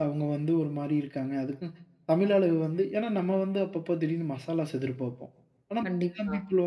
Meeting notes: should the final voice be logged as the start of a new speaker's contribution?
No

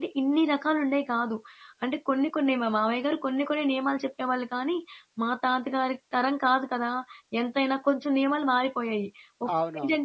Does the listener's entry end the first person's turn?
No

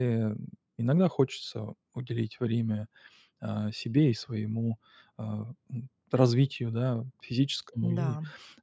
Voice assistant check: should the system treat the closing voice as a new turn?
No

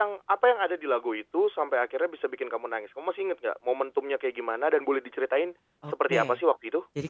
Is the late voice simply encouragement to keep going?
No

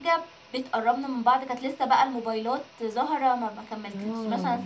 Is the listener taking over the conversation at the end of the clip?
No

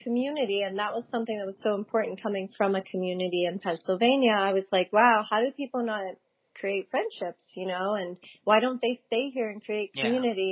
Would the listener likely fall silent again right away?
Yes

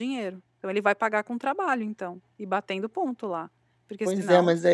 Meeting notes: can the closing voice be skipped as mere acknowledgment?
No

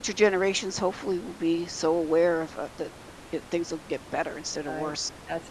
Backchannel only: No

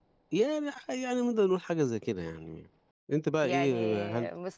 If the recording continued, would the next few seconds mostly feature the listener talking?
Yes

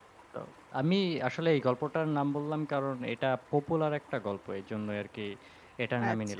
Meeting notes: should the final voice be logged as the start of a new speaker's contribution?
Yes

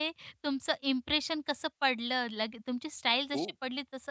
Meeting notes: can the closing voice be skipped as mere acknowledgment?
Yes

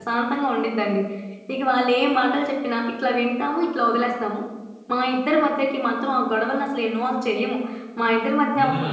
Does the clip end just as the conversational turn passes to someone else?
No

